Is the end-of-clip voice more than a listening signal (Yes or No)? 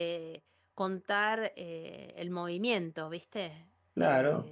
Yes